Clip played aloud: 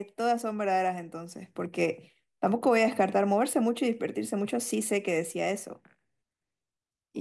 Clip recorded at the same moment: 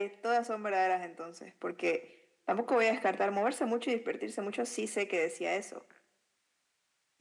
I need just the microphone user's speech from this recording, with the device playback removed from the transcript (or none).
none